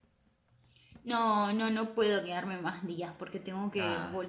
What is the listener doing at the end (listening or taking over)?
listening